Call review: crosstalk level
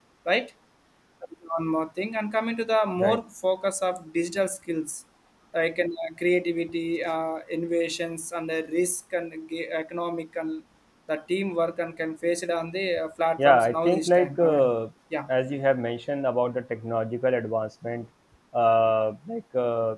present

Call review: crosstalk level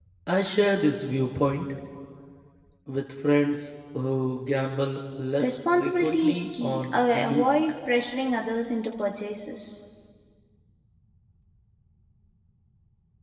present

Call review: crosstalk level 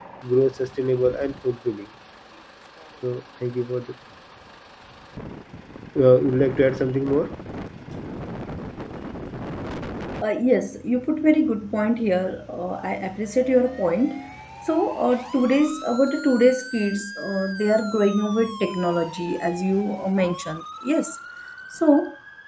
none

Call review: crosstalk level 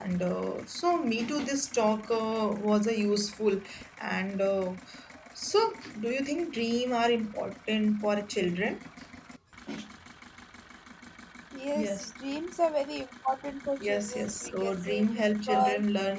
present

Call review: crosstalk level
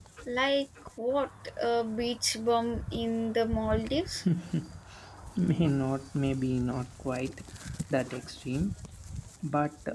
none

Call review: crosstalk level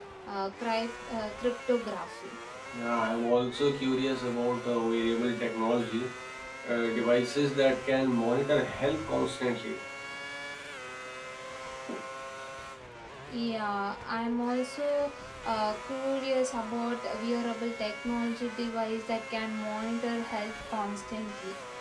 none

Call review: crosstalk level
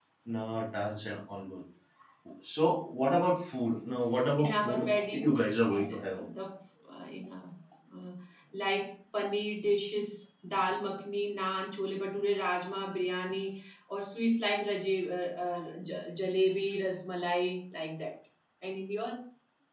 present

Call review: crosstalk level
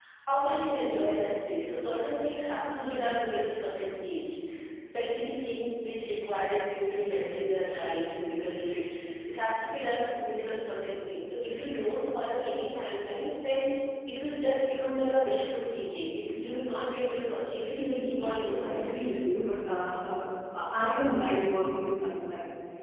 present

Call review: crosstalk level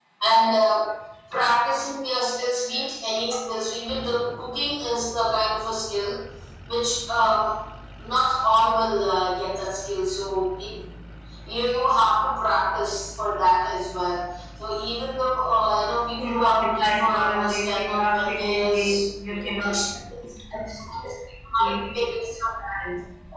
present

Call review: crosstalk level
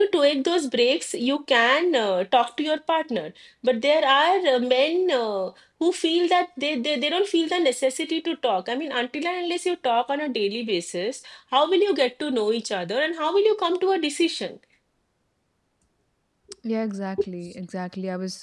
none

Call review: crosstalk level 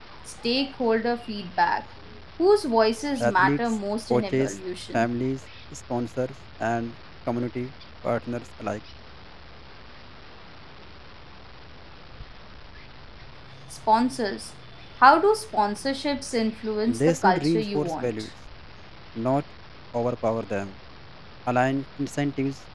present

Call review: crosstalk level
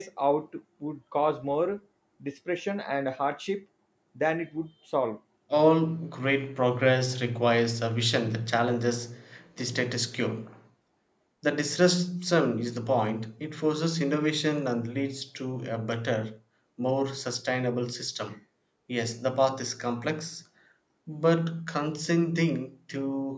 none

